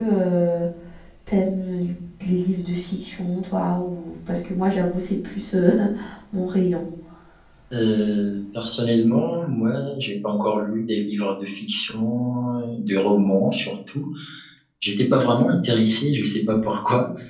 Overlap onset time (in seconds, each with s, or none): none